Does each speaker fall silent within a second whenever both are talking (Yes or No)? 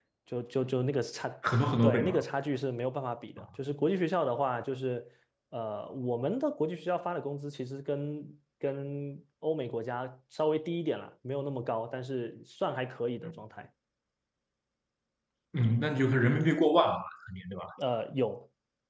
Yes